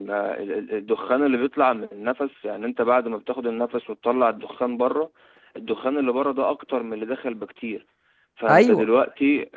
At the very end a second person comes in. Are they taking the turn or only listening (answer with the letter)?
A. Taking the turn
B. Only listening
B